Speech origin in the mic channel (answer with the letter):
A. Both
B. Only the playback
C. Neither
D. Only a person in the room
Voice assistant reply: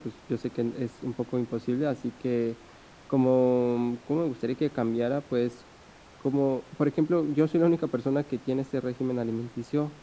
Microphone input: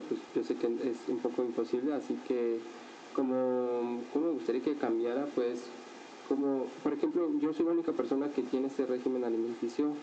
B